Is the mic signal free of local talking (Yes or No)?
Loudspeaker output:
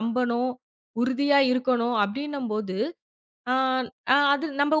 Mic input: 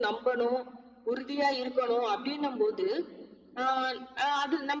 Yes